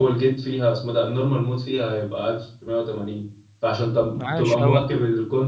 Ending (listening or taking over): listening